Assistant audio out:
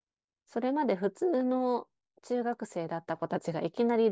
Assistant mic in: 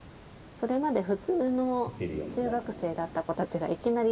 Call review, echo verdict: present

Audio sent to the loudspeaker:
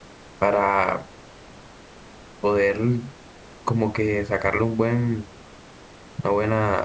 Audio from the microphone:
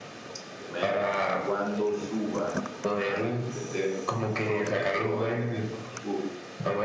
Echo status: present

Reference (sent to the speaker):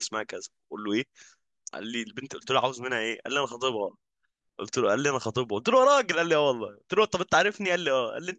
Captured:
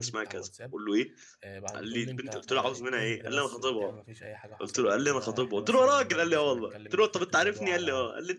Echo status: present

